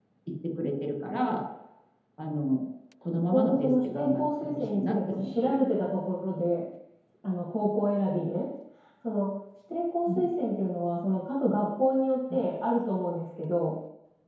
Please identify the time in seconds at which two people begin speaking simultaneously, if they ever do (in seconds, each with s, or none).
3.3 s